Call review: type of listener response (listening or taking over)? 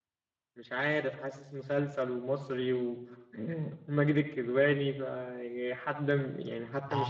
taking over